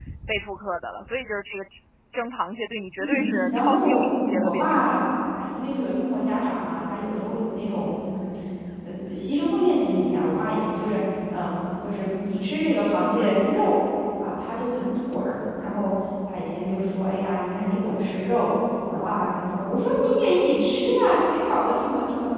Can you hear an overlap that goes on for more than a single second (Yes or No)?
Yes